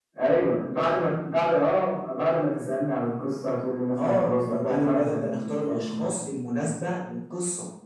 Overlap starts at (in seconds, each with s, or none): 4.0 s